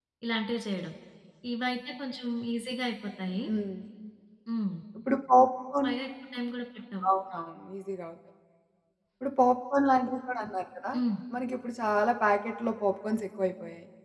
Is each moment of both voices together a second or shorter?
Yes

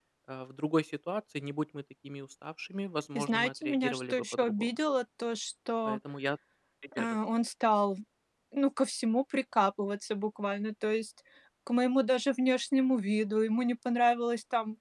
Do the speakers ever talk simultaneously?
Yes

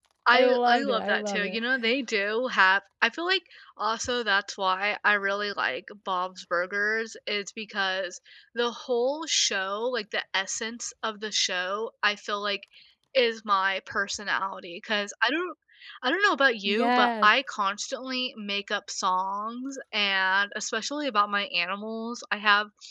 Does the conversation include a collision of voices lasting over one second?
Yes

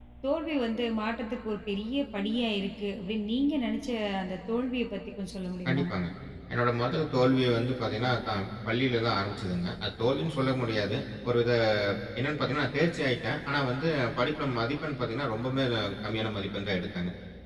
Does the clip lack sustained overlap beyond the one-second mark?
Yes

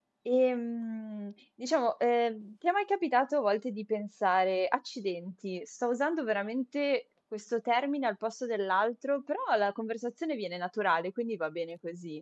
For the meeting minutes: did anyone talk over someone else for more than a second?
No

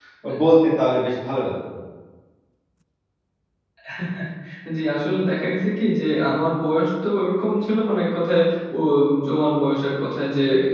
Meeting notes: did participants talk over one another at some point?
No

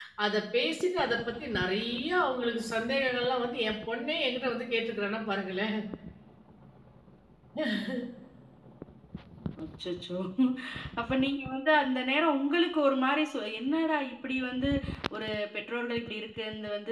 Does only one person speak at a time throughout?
Yes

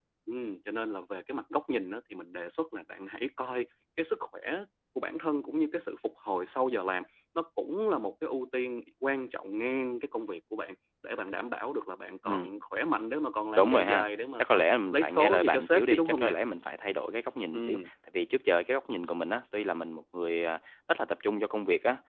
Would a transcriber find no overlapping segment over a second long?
No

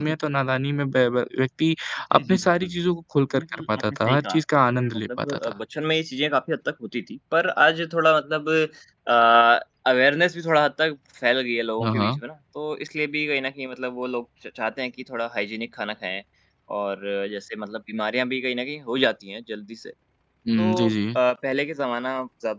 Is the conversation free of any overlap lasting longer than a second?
No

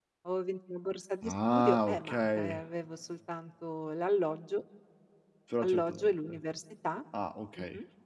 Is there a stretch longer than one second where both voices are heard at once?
Yes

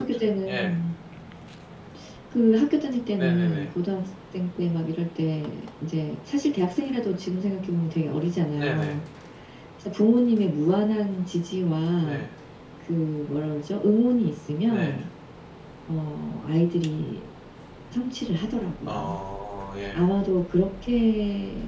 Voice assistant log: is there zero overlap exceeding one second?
Yes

